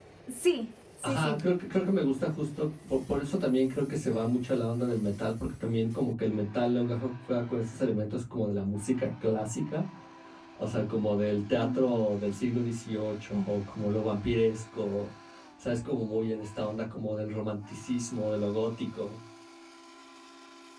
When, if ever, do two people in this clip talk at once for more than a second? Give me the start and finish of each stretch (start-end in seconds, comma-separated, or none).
none